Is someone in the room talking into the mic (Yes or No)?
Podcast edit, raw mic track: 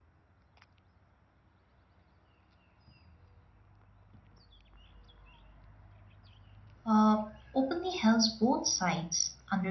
Yes